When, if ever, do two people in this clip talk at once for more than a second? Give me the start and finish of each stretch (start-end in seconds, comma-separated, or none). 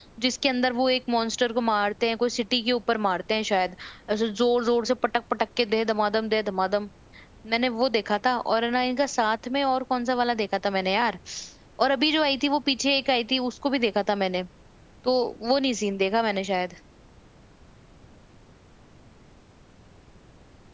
none